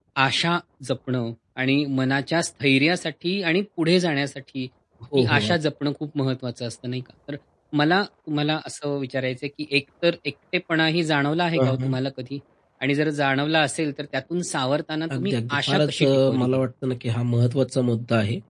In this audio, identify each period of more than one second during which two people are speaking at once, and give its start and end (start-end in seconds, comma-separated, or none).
15.2-16.6